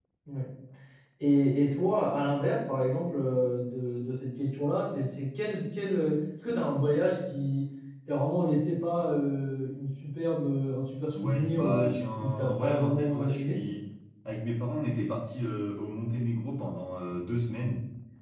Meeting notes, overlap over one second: present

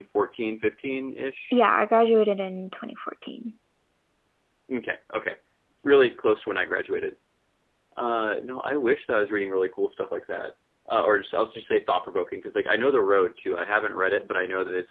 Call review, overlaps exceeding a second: none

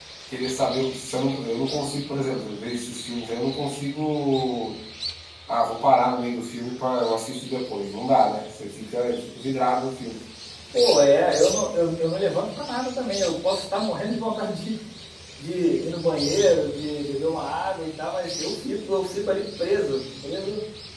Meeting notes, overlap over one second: none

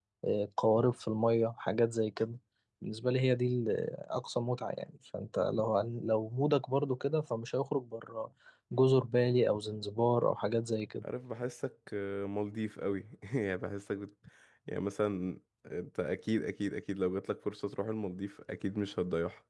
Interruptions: none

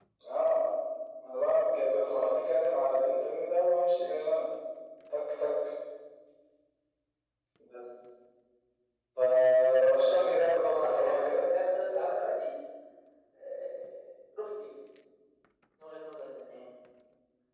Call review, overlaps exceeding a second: present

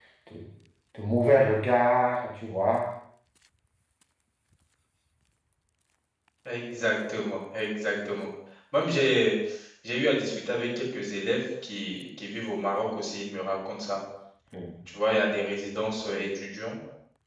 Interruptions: none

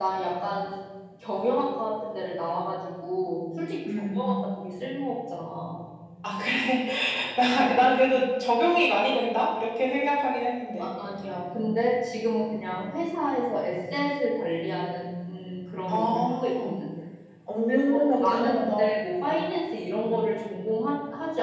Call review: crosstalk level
present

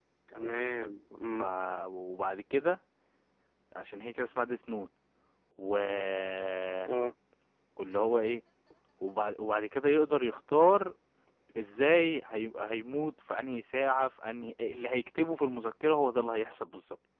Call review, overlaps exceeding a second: none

